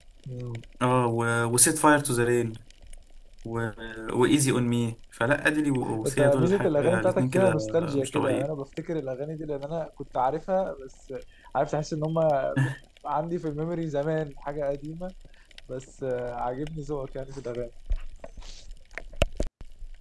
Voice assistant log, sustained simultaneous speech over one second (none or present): present